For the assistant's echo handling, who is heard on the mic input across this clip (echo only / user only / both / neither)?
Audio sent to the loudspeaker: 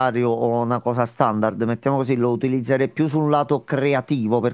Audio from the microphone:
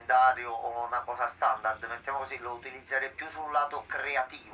echo only